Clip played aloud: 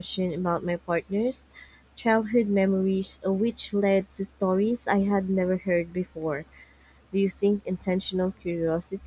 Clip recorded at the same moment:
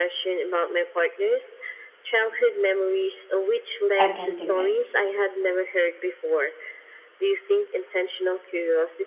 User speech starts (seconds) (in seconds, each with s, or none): 4.0 s